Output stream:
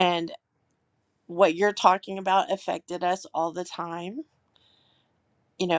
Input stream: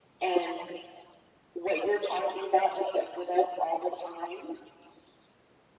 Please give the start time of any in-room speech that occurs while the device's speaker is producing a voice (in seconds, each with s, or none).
none